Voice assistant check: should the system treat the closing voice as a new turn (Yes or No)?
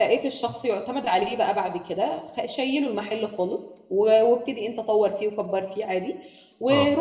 No